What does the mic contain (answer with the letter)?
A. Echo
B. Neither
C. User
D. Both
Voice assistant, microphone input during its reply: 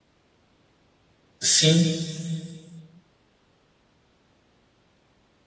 C